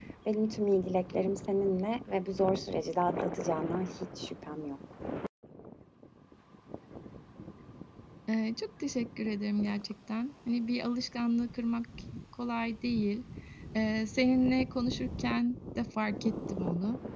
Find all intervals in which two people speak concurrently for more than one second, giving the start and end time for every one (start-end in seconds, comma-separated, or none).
none